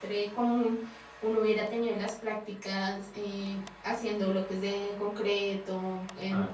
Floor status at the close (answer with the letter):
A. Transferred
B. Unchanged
B